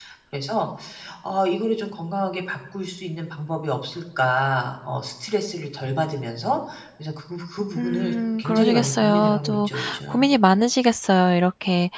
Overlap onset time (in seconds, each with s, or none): 7.8 s